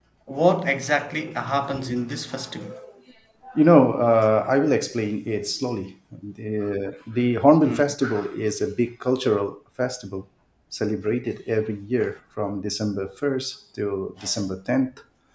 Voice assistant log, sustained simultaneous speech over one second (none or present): none